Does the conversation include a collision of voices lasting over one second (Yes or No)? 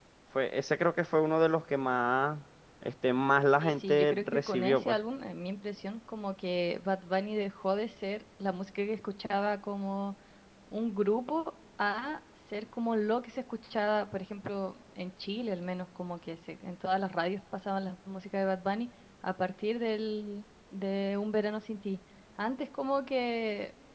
Yes